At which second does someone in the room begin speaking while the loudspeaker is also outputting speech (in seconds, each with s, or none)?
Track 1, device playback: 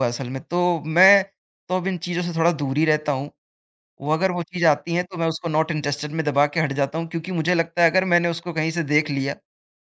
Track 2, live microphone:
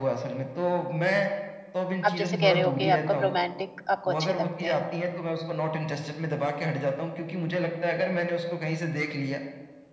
2.0 s